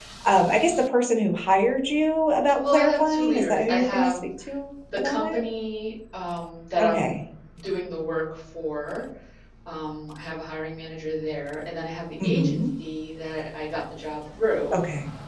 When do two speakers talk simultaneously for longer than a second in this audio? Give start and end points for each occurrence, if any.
2.6-4.2

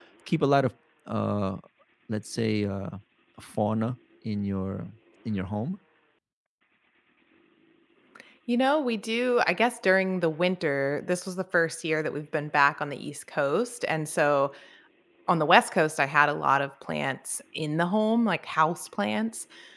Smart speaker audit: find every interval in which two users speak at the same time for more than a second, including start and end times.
none

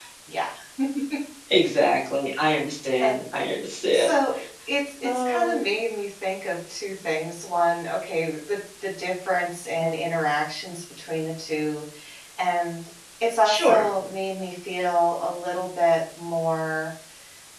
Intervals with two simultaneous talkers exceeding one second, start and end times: none

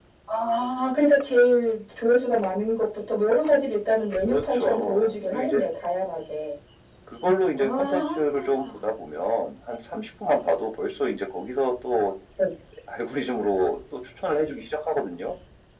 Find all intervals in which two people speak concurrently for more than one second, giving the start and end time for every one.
4.3-5.6, 7.6-8.8

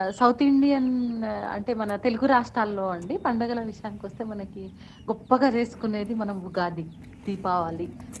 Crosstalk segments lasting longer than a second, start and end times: none

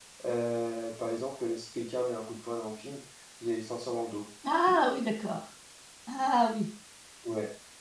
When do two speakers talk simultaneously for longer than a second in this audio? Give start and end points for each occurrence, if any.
none

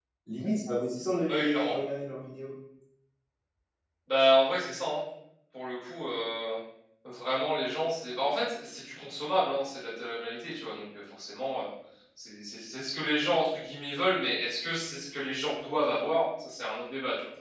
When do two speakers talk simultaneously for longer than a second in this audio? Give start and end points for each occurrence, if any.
none

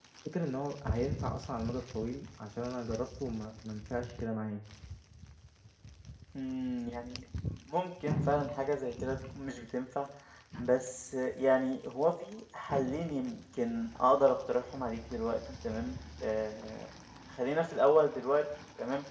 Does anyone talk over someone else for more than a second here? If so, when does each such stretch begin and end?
none

